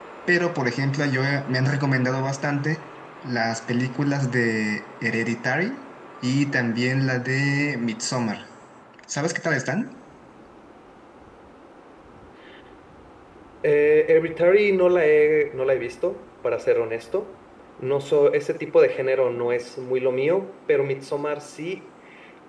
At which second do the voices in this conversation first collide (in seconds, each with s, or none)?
none